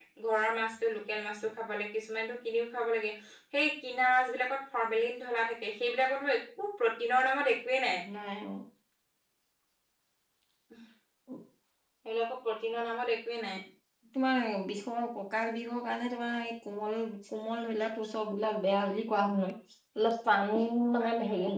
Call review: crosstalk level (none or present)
none